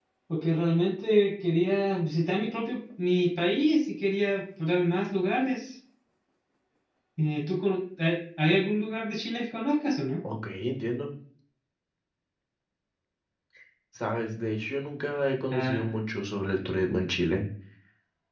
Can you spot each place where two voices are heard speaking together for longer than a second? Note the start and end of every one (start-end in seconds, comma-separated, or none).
none